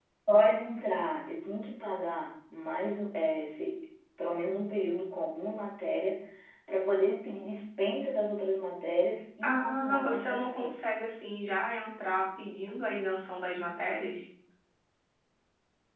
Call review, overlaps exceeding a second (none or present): present